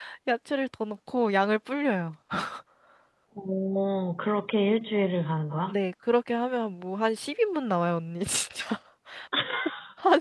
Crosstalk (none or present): none